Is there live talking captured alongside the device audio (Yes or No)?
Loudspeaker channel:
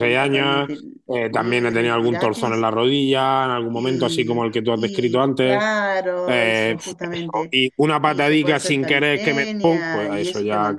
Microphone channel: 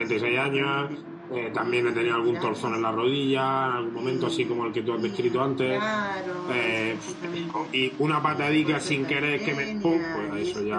No